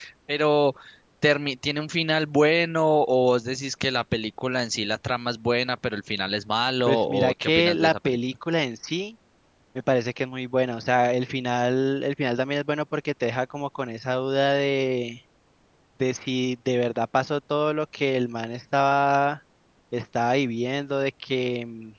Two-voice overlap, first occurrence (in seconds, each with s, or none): 6.9 s